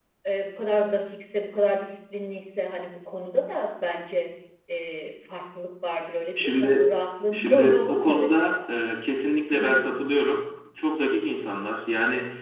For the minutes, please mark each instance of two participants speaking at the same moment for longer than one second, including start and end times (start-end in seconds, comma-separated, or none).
7.3-8.6